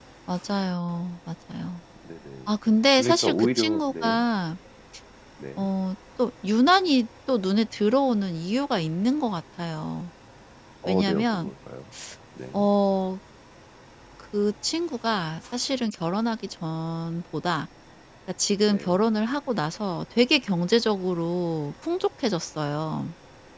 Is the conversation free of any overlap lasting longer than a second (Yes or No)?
No